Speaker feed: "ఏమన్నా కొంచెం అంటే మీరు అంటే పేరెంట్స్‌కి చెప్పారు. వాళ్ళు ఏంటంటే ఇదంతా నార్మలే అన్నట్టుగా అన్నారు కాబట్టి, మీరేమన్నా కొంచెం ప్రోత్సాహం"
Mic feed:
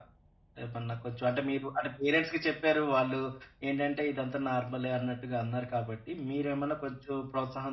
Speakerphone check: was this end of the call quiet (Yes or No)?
Yes